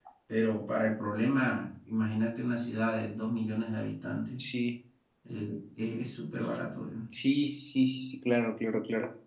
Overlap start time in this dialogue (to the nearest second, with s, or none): none